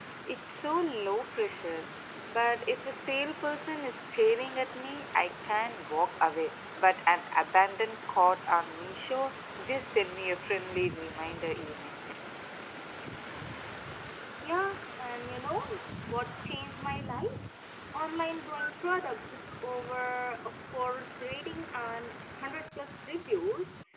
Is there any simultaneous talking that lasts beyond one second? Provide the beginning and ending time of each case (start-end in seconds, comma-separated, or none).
none